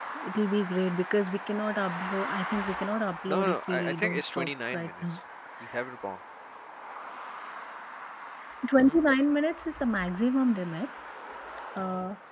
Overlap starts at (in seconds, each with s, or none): 3.3 s